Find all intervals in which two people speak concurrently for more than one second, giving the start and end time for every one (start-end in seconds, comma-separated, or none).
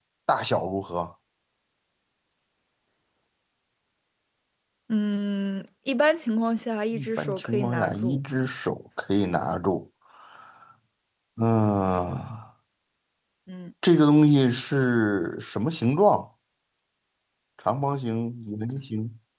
6.9-8.2